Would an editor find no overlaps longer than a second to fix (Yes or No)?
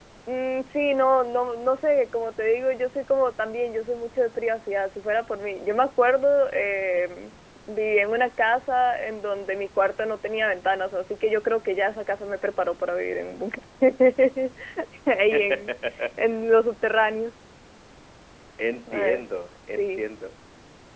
Yes